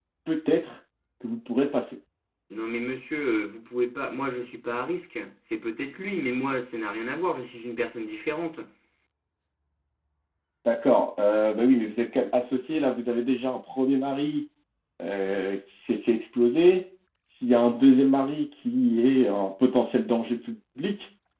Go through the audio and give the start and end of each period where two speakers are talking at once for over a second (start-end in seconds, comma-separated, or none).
none